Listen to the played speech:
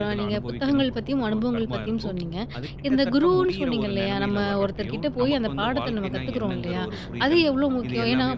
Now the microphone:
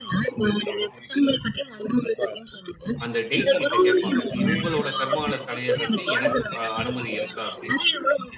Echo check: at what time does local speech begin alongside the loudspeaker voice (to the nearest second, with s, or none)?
3 s